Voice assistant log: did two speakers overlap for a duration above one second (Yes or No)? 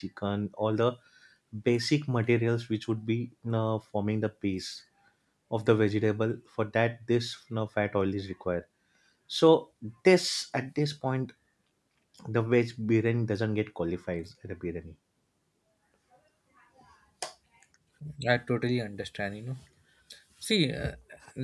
No